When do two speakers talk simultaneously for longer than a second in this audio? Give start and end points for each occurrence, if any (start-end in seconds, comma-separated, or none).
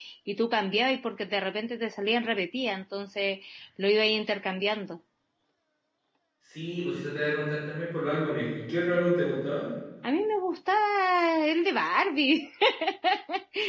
none